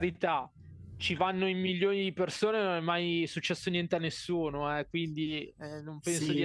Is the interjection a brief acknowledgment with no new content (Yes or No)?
No